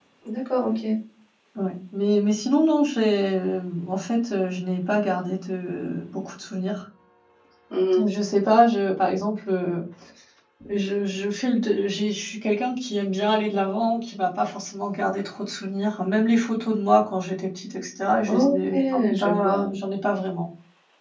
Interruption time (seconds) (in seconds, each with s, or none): 18.2 s